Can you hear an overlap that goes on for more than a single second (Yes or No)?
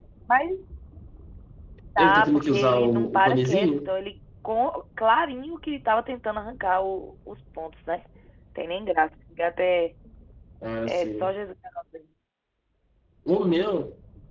Yes